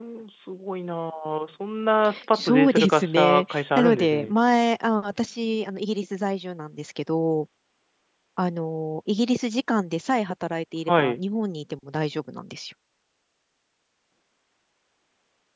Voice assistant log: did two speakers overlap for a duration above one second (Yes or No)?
Yes